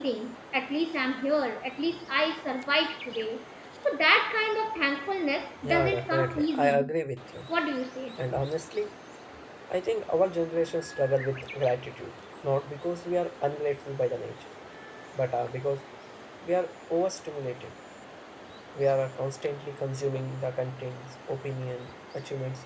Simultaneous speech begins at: 6 s

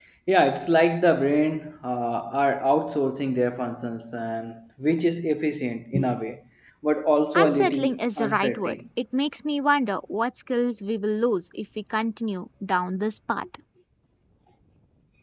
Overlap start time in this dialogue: 7 s

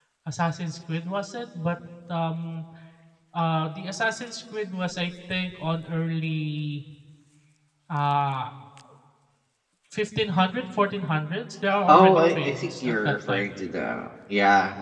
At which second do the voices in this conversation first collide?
12 s

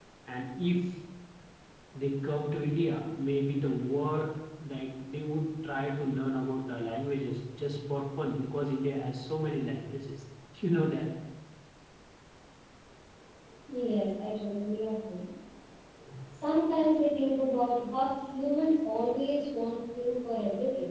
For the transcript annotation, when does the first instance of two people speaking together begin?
none

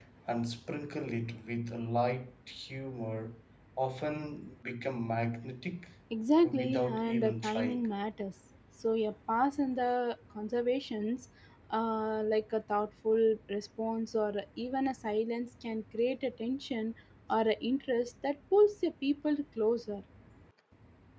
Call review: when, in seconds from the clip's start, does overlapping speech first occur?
6 s

